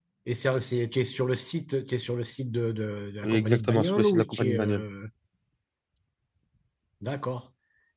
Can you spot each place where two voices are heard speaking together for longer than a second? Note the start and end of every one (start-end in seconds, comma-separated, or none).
3.2-4.8